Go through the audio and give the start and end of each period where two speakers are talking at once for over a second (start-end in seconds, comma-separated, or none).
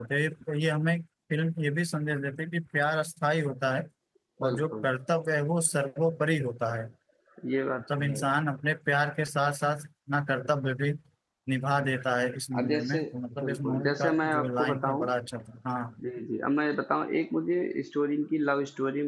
13.4-15.1